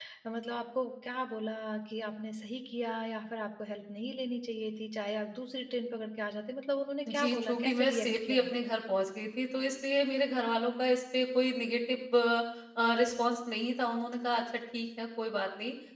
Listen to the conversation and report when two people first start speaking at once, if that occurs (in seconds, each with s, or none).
7.1 s